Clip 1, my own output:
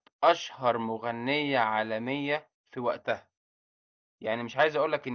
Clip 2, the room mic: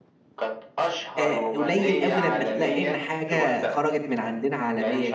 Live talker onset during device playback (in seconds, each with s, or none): 1.2 s